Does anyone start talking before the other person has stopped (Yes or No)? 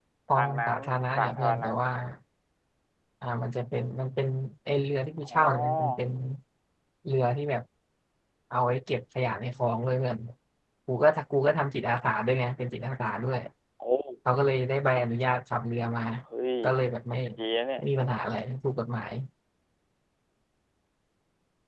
Yes